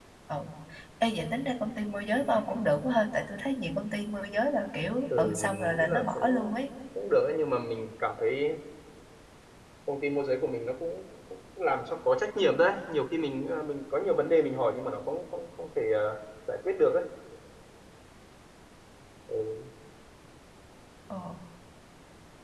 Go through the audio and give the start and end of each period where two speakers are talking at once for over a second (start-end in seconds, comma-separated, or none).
5.2-6.5